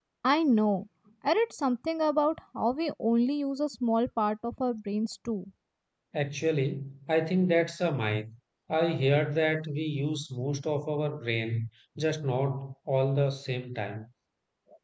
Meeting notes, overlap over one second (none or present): none